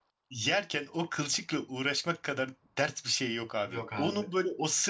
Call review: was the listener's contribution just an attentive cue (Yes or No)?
Yes